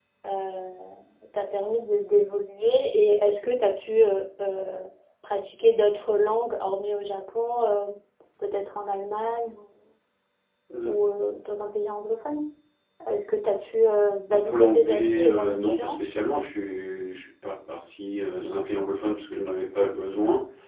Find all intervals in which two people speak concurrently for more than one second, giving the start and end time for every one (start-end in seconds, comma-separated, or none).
14.3-16.1